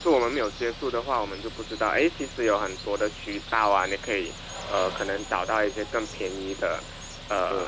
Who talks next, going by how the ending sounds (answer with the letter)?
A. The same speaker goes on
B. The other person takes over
B